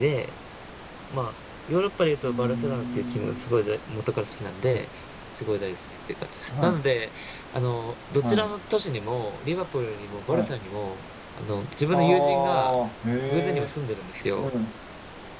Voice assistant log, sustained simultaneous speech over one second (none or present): present